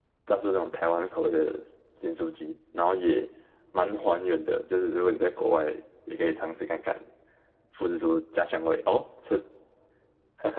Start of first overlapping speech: none

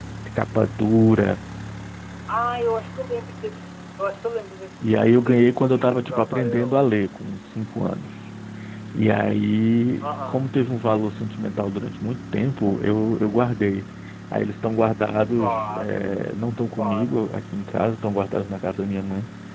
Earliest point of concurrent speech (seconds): 4.8 s

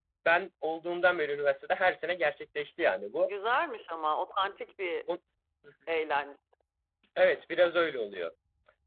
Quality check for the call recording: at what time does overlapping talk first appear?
none

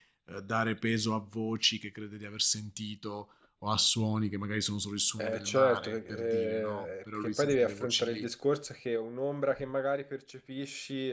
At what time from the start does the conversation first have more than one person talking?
5.2 s

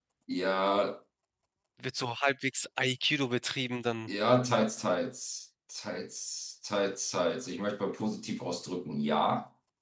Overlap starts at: none

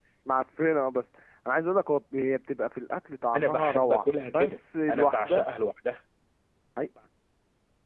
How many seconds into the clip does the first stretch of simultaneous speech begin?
3.3 s

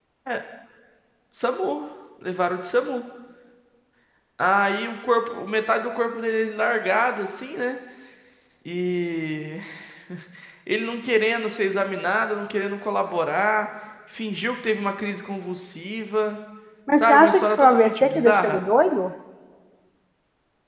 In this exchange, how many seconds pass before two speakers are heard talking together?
17.0 s

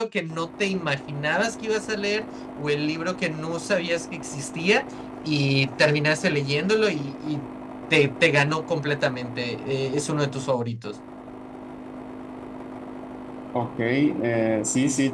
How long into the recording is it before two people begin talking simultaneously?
none

